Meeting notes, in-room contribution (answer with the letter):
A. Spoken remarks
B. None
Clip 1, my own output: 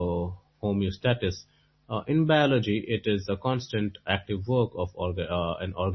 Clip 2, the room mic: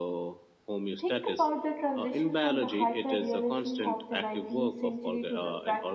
A